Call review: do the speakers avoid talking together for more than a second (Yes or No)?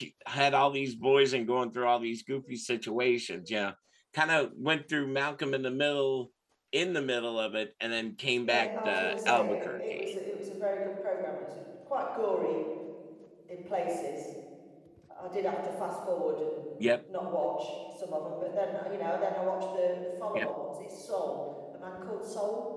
No